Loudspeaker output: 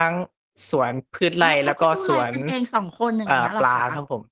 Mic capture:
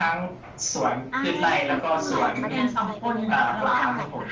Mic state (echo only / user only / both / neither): both